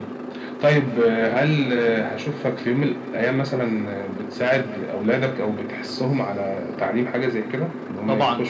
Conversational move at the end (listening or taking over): taking over